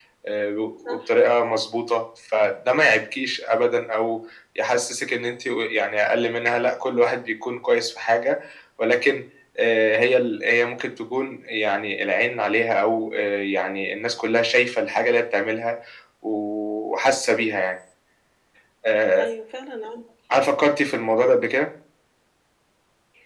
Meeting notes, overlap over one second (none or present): none